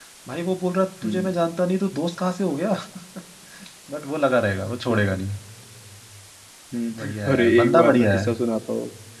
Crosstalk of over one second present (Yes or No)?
Yes